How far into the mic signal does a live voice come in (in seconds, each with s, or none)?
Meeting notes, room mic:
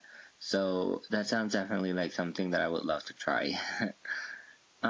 none